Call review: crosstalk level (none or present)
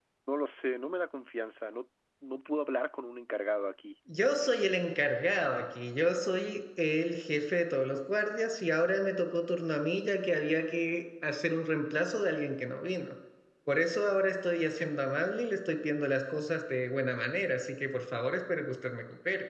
none